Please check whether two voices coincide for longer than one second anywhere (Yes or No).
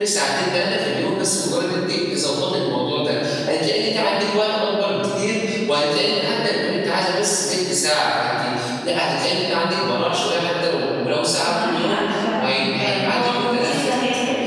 Yes